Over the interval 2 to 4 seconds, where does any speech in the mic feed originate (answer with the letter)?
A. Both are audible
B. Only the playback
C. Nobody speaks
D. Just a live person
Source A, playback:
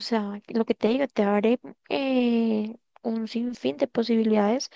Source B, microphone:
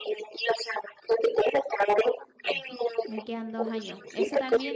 A